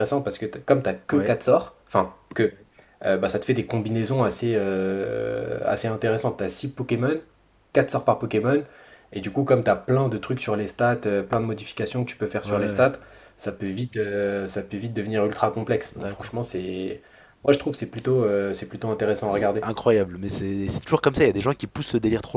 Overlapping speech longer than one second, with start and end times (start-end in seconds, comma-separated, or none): none